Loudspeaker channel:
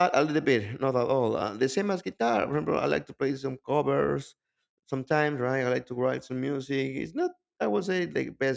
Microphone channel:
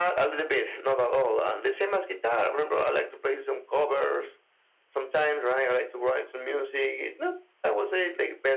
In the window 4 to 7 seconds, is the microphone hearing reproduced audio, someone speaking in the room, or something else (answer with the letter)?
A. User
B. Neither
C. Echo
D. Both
C